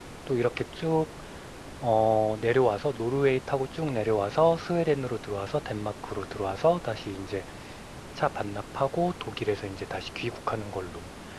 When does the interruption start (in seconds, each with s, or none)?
none